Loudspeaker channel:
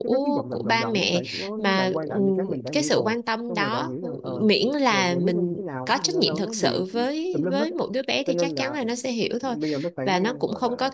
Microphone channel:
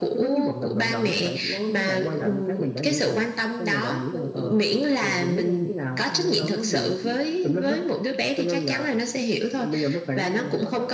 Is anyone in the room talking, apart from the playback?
No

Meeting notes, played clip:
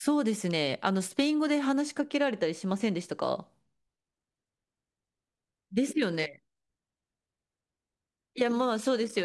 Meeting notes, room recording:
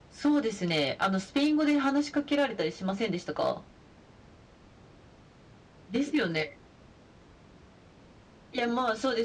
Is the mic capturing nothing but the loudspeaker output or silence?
Yes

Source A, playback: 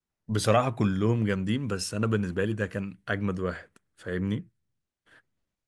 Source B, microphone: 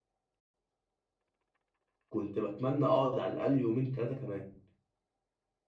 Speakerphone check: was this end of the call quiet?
No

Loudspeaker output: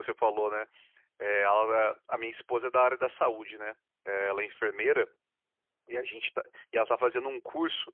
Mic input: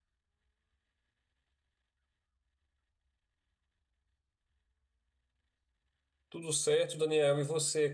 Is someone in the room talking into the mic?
Yes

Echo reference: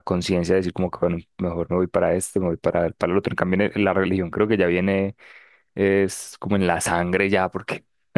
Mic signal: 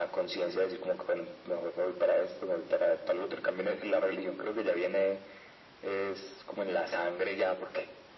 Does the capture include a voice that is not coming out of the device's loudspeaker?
No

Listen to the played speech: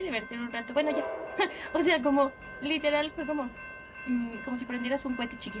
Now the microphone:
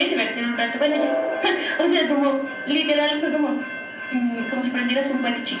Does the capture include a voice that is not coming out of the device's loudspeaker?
No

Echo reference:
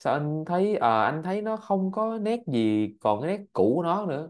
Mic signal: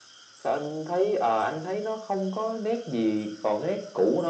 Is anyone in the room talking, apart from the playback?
No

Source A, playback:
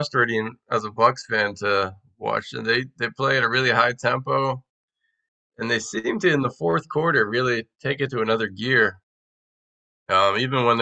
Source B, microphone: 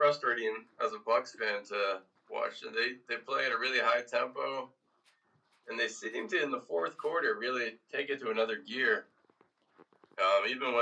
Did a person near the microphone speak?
No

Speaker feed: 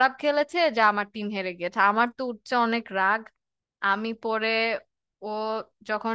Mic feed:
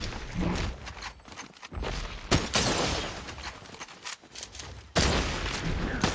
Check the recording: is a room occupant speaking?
No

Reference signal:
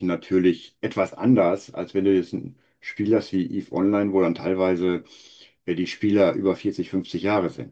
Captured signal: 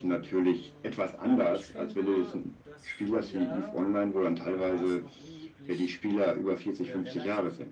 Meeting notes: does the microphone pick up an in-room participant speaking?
Yes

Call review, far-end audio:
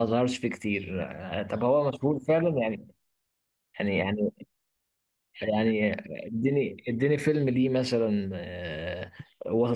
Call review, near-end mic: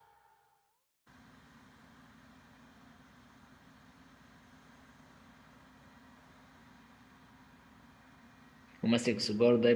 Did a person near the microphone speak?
Yes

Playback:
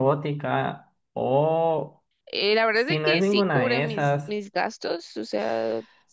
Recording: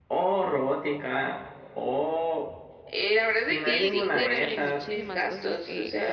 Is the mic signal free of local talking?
No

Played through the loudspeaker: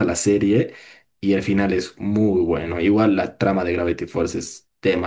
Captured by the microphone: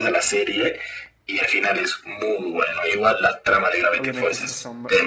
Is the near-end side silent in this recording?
No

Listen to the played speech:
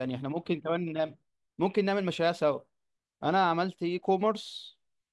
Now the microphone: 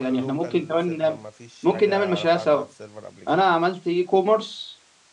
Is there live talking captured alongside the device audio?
Yes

